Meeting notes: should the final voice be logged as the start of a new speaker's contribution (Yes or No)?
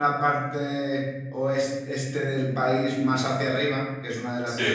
No